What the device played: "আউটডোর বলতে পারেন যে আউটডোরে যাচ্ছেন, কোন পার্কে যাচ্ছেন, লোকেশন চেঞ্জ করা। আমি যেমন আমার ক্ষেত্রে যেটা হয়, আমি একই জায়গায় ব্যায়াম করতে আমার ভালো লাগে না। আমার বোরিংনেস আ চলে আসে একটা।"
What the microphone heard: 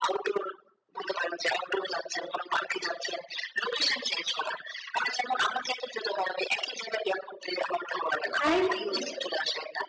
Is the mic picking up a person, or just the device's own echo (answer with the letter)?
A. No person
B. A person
B